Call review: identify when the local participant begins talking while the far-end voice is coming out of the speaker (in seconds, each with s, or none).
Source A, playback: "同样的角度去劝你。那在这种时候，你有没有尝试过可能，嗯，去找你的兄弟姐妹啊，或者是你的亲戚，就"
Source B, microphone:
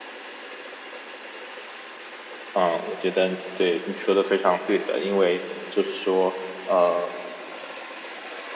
2.5 s